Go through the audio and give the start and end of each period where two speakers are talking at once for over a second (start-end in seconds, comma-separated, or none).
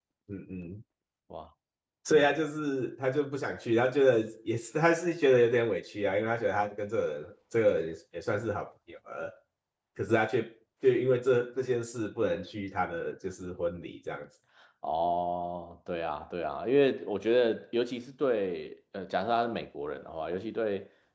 none